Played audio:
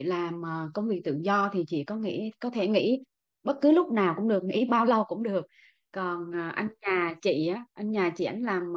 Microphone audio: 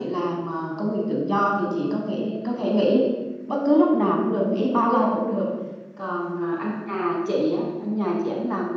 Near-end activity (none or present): none